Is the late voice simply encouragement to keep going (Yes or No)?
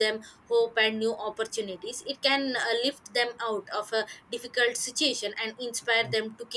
Yes